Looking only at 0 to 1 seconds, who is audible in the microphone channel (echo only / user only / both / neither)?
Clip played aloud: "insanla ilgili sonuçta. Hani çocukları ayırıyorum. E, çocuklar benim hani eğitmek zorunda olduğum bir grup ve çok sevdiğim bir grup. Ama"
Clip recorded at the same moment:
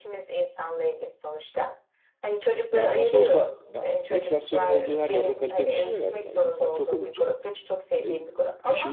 echo only